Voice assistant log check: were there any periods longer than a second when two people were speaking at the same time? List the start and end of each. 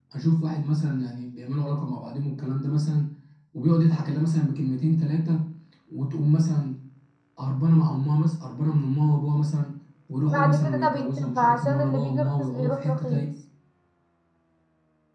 10.3-13.2

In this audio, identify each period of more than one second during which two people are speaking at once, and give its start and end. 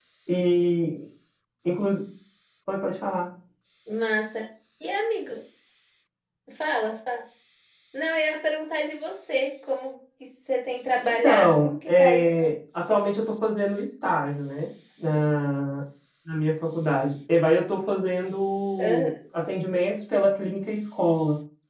10.9-12.4

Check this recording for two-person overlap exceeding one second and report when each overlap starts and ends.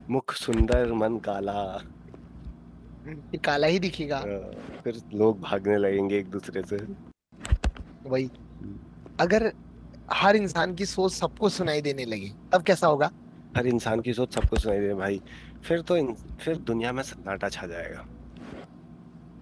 none

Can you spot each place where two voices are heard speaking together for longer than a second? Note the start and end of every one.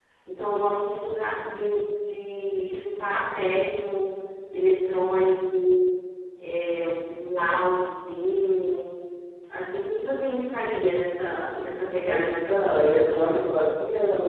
12.1-13.6

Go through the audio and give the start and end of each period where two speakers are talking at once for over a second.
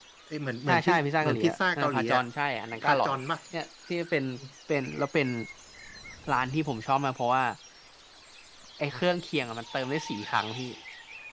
0.7-2.2

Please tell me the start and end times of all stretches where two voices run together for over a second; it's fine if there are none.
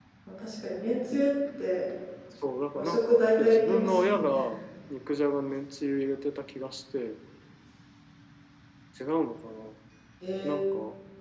2.8-4.3

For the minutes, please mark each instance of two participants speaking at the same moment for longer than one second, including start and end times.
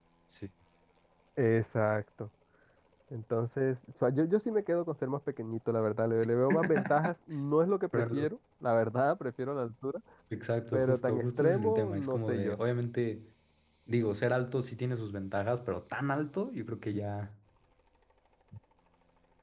10.7-12.6

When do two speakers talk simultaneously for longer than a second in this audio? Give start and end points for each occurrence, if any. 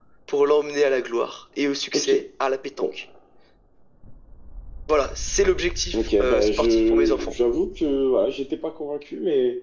5.9-7.3

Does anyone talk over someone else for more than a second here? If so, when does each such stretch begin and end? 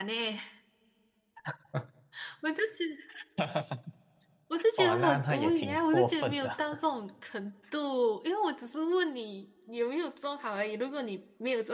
4.8-6.8

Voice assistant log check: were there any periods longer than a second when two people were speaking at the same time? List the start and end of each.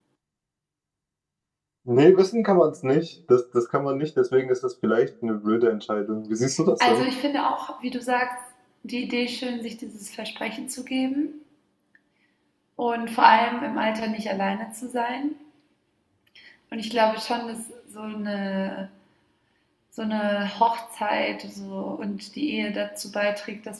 none

